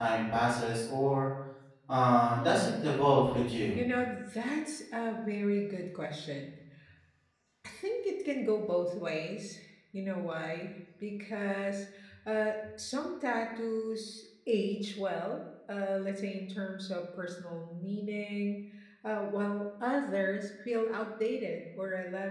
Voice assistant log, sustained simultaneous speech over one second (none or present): none